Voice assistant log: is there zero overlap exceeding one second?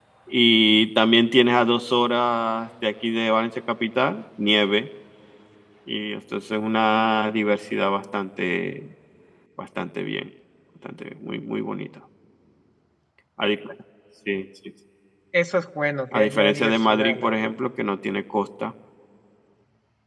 No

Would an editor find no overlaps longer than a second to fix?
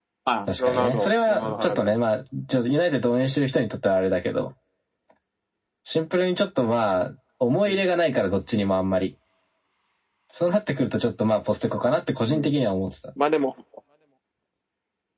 No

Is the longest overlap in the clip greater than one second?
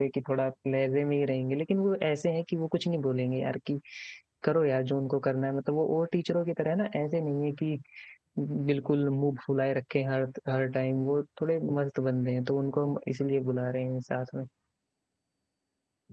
No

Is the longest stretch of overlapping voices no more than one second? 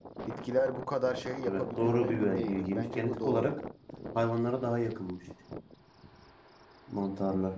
No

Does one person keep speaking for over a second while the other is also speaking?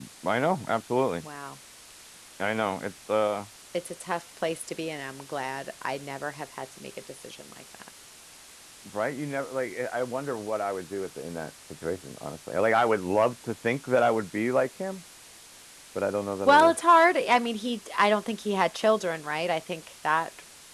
No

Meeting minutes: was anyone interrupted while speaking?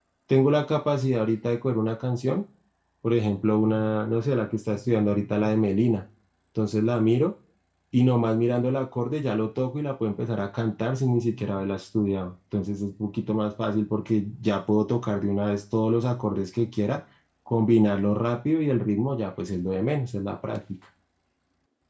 No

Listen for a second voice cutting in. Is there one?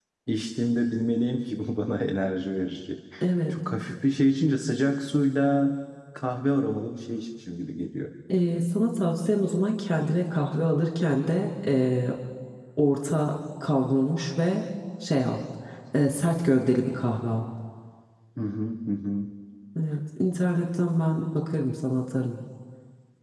No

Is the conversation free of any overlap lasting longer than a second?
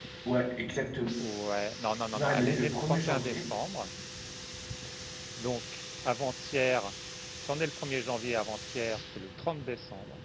No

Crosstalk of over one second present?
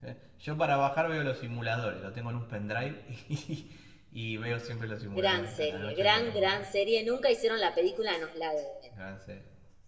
Yes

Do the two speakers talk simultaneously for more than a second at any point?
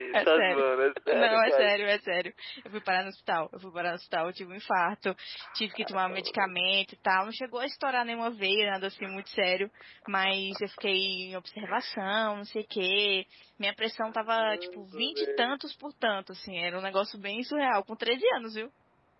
Yes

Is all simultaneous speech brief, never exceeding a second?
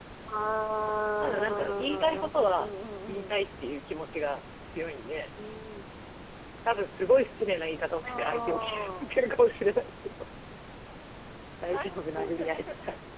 No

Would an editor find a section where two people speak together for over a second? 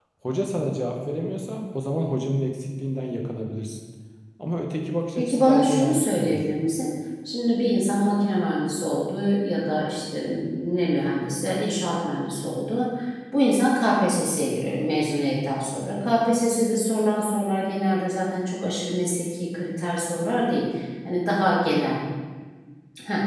Yes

